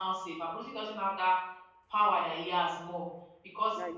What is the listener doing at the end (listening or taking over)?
listening